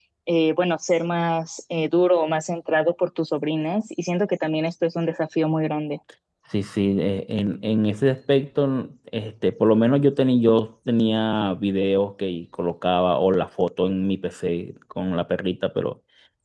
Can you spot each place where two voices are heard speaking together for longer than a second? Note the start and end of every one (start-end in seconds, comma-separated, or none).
none